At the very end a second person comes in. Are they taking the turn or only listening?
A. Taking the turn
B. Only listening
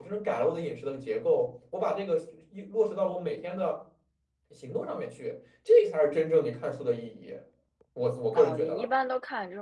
A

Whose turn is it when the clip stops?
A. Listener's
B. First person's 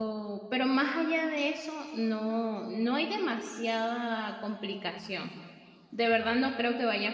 B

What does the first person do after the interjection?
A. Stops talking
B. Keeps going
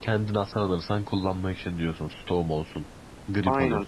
A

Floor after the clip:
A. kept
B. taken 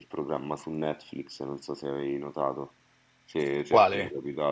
A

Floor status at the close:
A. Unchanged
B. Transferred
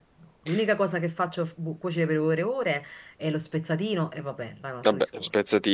B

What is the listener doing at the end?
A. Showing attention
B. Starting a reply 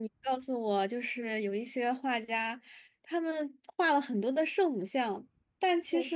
A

